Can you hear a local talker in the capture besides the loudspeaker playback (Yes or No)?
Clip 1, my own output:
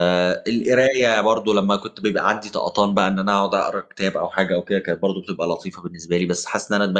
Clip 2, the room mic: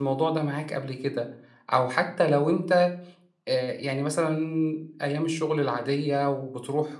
Yes